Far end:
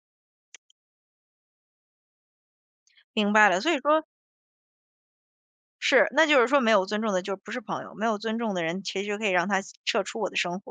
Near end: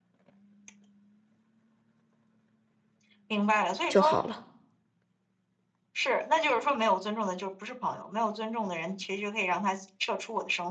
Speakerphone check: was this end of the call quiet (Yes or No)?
No